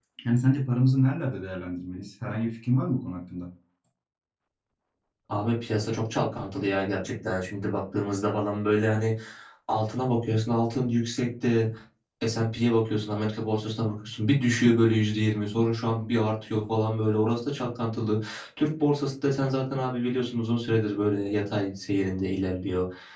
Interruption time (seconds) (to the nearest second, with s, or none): none